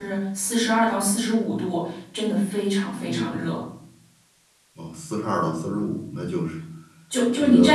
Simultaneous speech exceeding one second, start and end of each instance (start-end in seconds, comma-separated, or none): none